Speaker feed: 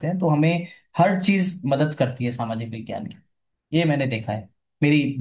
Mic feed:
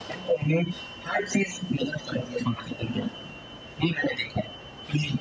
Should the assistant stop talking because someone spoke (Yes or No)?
No